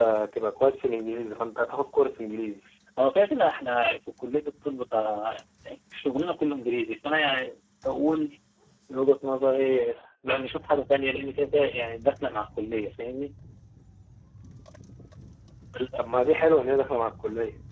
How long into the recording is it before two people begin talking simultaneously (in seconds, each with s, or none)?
none